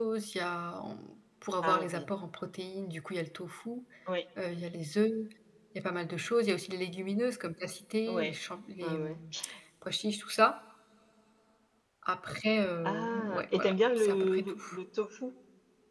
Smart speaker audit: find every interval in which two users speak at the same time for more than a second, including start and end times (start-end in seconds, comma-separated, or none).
12.8-14.5